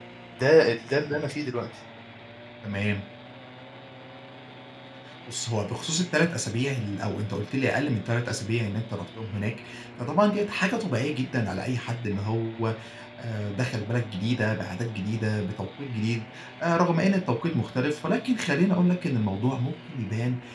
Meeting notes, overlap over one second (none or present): none